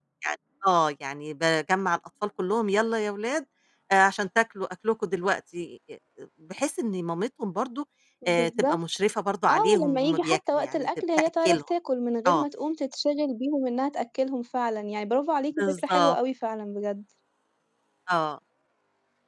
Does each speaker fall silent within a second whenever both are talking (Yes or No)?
No